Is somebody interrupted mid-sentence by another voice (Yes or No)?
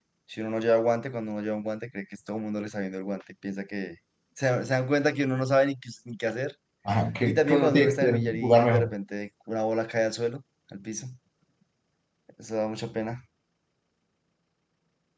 Yes